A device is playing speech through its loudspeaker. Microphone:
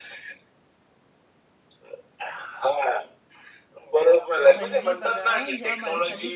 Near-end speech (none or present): present